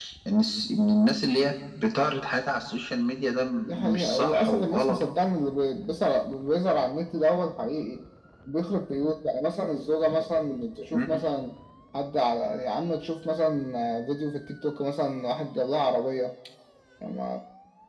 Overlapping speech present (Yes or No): Yes